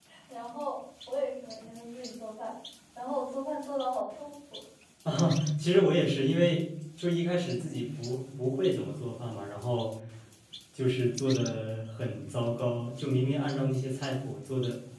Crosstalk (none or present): none